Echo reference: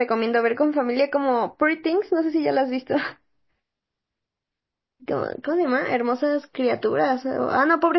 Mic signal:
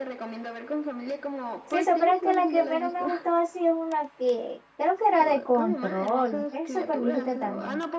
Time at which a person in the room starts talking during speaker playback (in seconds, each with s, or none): 1.6 s